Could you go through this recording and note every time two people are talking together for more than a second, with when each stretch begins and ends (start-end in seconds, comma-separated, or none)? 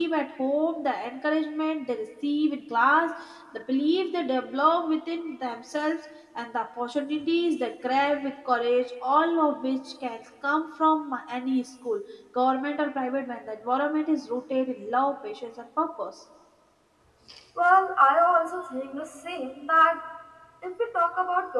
none